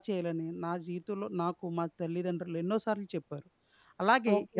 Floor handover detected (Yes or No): Yes